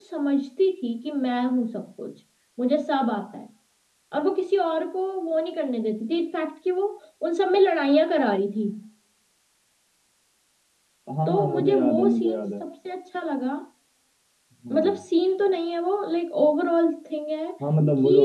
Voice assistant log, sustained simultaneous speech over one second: present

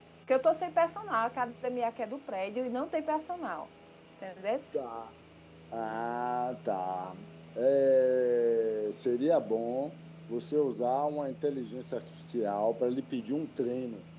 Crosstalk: none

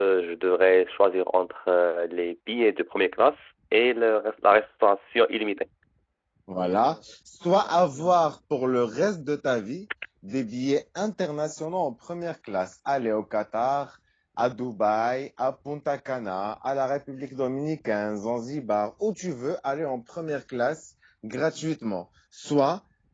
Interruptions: none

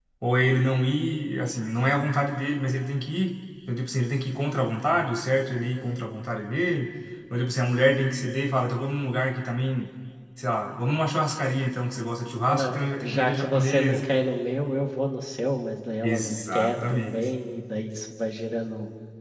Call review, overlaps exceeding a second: present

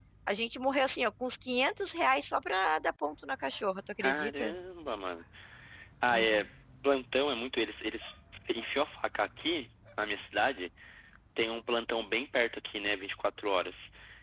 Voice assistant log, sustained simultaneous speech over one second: none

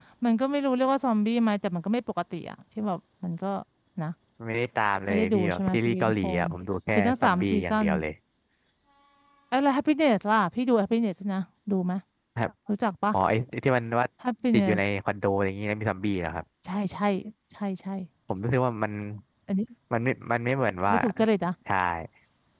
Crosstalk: present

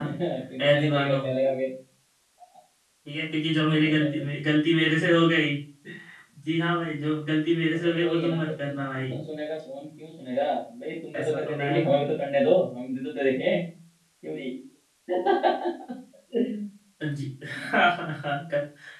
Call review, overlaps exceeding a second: present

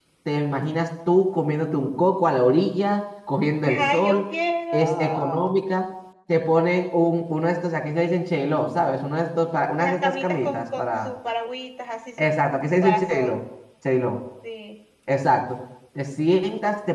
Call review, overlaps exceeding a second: present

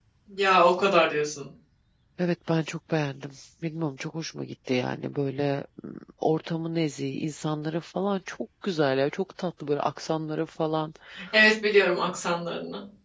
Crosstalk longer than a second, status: none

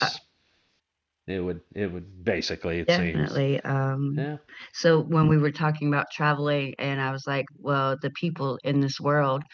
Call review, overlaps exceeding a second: none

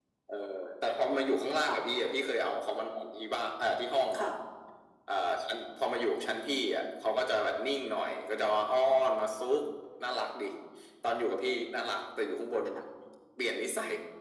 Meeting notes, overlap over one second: none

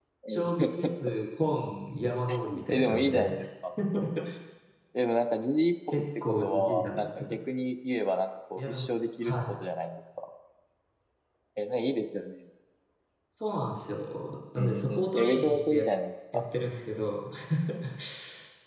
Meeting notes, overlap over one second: present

